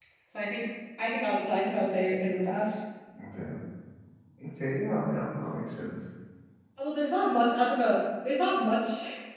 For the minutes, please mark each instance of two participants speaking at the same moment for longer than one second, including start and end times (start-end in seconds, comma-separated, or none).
none